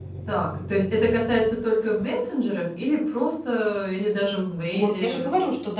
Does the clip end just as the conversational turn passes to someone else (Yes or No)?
Yes